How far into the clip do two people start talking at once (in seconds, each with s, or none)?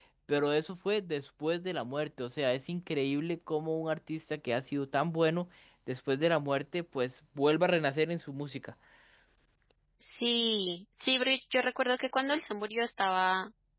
none